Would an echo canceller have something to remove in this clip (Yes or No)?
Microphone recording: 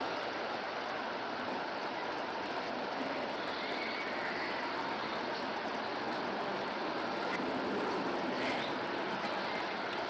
No